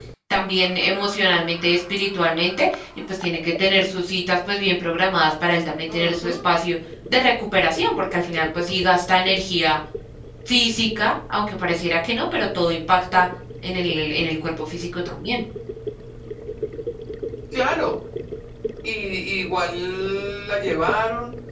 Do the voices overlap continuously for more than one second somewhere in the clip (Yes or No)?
No